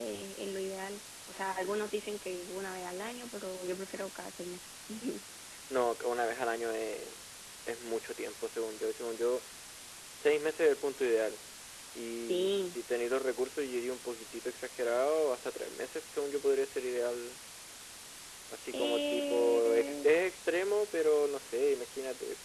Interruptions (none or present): present